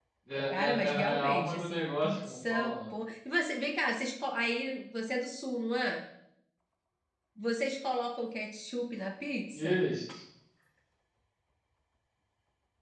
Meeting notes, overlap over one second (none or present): present